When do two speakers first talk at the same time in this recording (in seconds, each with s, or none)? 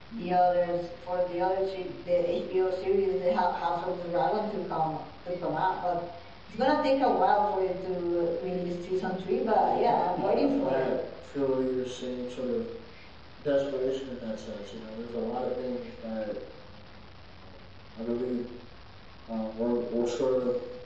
9.4 s